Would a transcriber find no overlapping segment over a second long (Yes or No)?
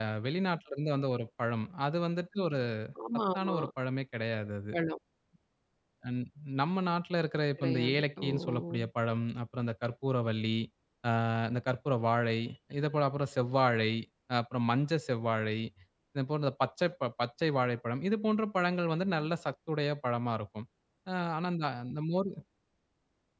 No